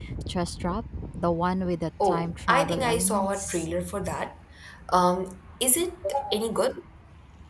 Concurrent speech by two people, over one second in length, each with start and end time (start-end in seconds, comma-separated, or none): 2.0-3.7